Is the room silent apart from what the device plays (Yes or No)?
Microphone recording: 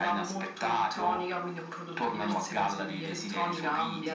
Yes